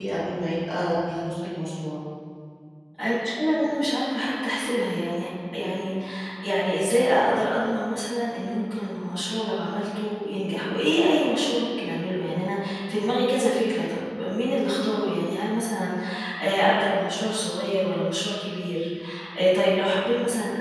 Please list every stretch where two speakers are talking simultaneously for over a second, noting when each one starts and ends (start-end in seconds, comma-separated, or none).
none